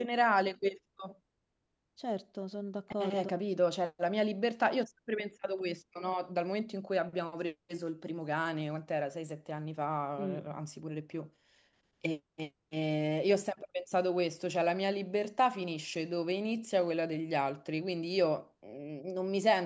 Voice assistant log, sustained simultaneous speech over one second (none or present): none